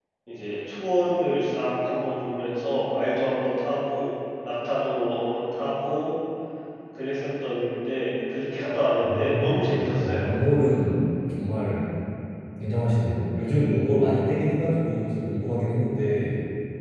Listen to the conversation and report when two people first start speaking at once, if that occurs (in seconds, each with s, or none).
9.0 s